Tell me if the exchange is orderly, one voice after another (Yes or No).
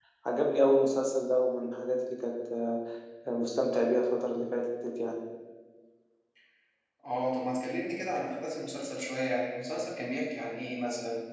Yes